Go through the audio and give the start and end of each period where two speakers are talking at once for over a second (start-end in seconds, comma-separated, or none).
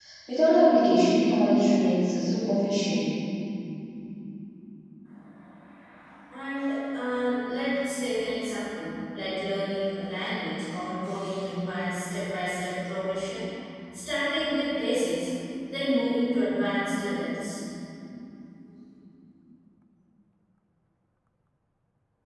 none